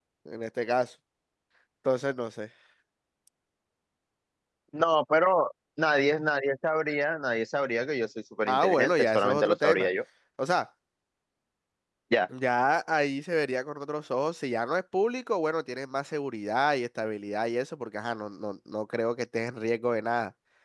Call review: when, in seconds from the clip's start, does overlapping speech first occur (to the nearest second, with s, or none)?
8 s